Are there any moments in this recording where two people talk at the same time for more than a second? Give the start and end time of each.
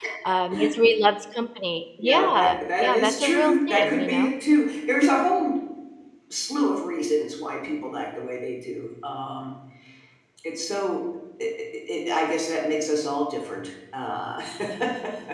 2.0-4.3

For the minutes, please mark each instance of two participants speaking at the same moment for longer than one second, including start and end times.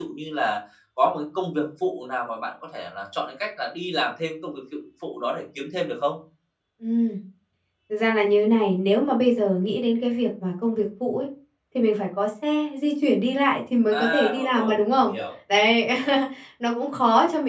13.9-15.1

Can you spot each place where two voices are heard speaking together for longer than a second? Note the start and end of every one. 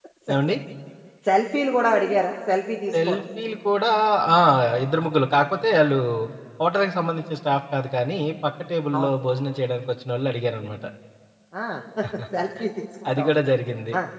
none

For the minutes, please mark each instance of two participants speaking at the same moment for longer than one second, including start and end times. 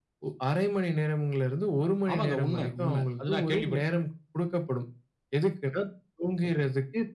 2.1-3.8

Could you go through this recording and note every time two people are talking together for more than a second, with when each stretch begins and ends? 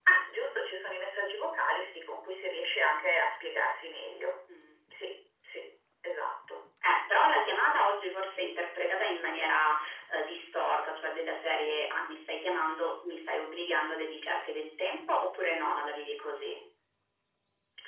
none

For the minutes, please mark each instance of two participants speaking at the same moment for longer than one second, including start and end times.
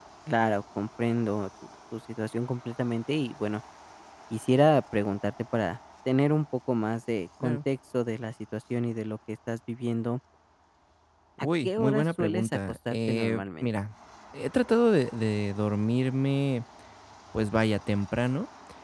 11.4-13.7

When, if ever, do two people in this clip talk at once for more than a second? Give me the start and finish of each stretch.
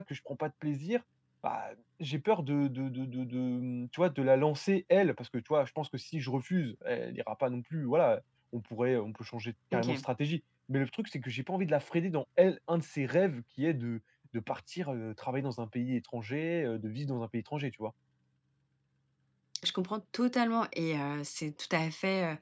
none

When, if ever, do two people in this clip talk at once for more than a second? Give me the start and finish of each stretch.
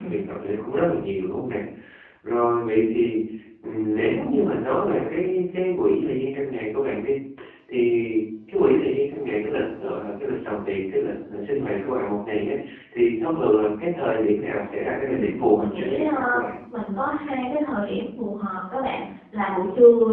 15.0-16.4

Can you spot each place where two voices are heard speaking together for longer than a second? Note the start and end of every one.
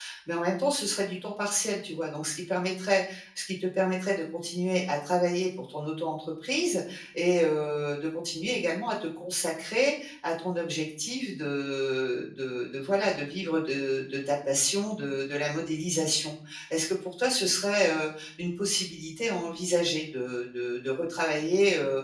none

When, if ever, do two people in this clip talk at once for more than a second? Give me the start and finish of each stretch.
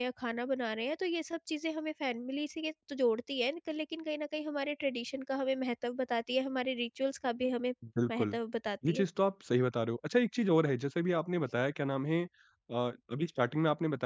none

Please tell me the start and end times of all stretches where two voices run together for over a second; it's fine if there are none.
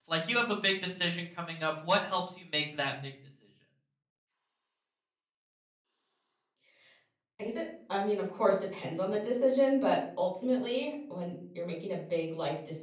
none

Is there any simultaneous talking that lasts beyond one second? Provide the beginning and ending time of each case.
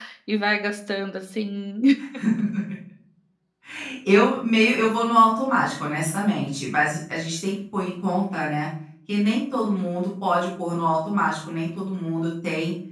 none

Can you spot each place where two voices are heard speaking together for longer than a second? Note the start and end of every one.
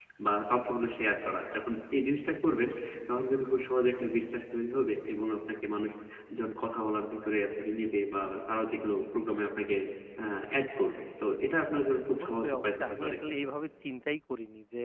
12.1-13.3

